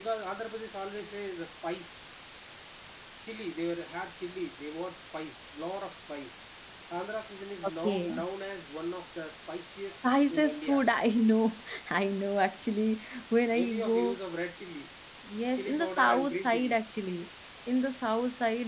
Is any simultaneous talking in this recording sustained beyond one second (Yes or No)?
Yes